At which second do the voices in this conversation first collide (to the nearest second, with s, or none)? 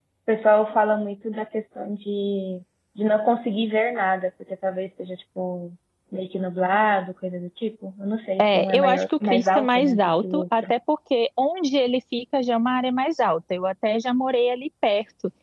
8 s